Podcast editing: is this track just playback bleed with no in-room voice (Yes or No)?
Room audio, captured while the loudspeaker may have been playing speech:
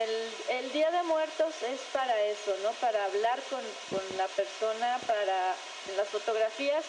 Yes